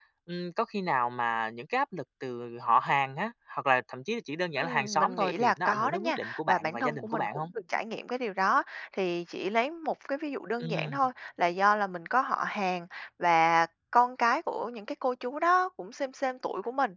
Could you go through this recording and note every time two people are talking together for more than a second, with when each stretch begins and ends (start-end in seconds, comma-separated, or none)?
4.6-7.5